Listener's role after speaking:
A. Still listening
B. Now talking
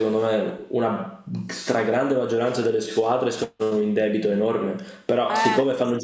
A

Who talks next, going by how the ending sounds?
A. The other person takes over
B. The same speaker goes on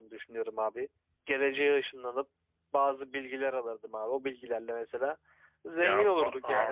A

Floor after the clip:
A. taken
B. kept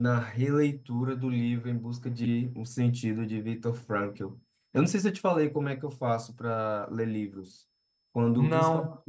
B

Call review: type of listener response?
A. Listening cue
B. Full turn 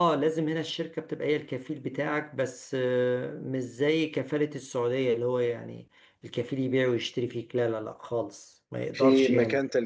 B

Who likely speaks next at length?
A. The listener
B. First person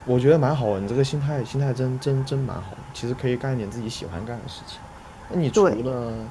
B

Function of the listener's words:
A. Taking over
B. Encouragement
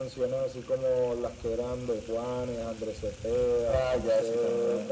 A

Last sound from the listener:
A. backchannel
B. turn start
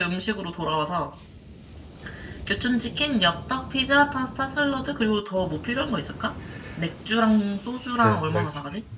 B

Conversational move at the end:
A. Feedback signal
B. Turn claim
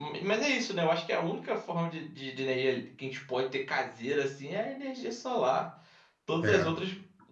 A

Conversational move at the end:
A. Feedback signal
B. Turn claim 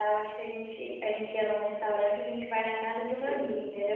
A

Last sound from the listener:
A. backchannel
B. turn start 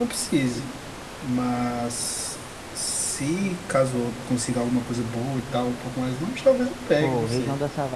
B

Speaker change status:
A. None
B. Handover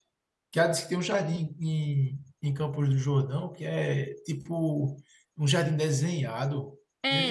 B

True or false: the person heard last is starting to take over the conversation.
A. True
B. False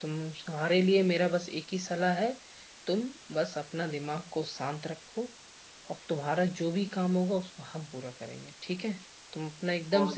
A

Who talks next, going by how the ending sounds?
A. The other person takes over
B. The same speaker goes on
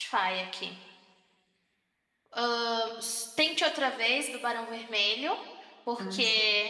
B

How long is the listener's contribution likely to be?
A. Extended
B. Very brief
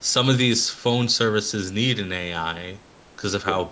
B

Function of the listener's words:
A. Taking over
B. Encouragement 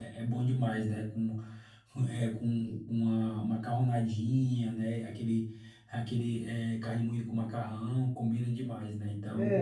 A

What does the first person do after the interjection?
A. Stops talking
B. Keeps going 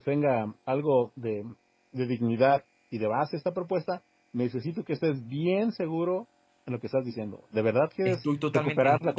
A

